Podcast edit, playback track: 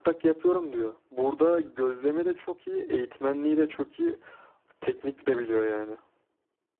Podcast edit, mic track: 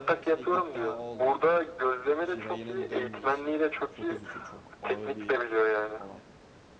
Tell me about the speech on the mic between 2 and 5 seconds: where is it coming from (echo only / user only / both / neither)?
both